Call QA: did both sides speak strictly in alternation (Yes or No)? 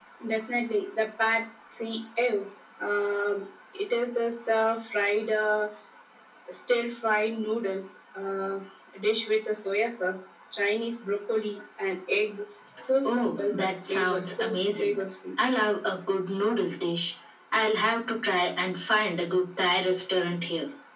No